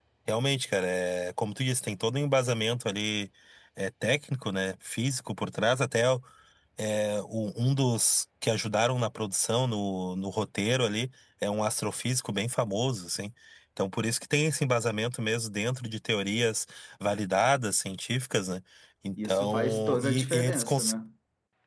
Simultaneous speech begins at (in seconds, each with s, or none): 19.2 s